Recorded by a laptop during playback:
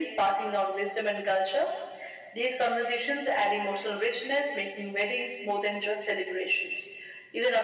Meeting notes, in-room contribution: none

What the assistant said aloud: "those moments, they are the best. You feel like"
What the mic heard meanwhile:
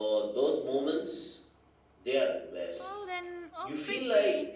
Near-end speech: present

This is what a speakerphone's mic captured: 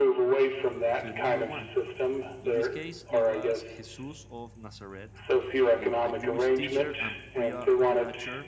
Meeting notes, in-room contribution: present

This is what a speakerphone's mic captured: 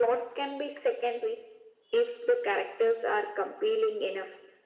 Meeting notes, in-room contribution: none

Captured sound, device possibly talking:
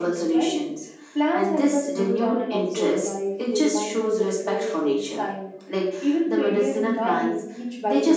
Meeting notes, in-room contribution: none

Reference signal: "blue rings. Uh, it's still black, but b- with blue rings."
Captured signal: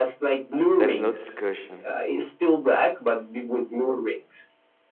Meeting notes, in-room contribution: present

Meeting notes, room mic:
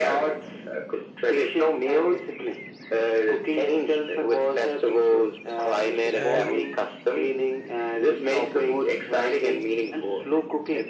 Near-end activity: present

